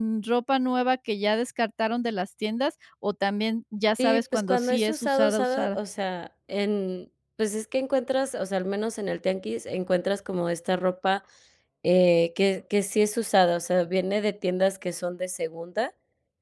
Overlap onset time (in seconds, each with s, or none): 4.0 s